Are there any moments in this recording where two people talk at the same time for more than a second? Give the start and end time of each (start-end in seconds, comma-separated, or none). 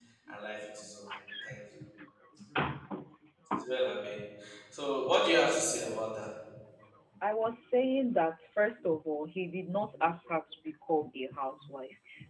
none